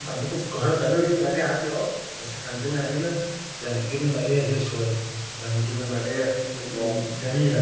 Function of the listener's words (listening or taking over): listening